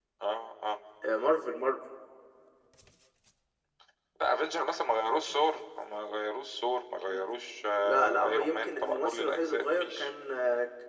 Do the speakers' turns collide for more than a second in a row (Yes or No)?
Yes